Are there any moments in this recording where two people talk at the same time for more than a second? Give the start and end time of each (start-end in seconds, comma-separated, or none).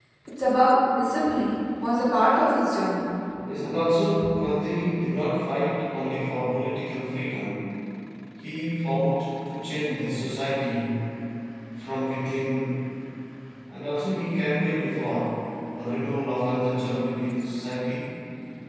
none